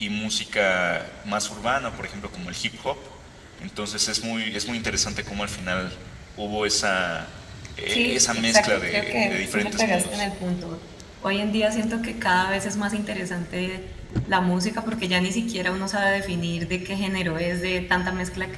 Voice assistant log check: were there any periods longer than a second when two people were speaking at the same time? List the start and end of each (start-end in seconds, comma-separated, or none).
7.9-10.2